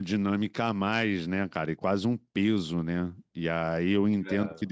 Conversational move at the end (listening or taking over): listening